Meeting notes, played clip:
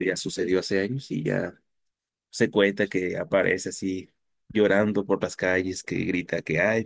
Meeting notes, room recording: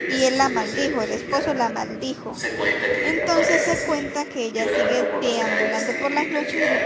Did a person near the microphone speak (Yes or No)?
Yes